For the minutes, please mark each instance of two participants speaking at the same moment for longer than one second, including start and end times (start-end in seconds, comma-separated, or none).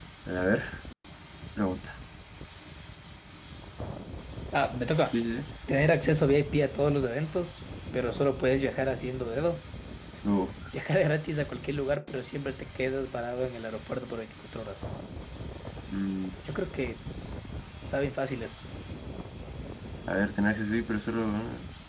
none